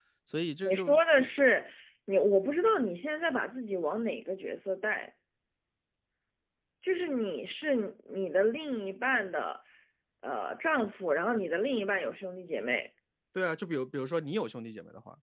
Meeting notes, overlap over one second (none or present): none